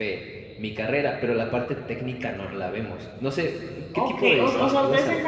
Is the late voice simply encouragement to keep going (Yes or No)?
No